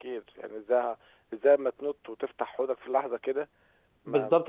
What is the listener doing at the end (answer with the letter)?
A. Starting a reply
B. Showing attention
A